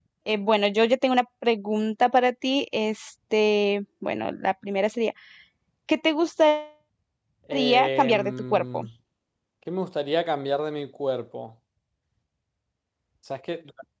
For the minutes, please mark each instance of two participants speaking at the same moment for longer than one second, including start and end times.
7.5-8.8

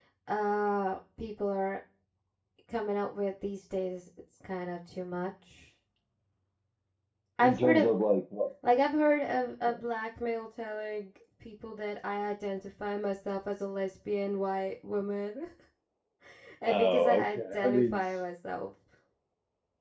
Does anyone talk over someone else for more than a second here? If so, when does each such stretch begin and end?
16.6-18.2

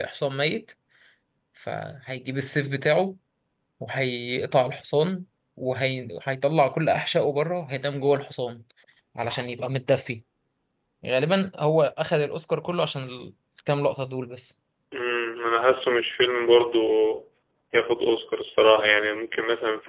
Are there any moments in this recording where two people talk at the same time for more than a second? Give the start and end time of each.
none

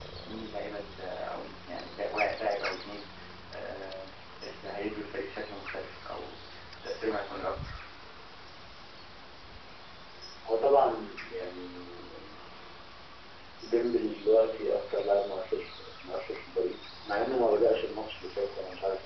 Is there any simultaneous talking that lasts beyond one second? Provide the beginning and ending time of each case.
none

